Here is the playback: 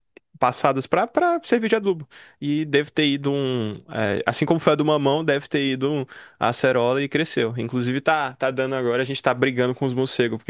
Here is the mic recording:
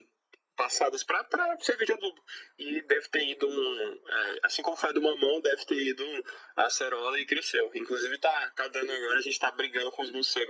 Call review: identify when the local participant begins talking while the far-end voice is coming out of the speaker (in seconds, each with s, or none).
none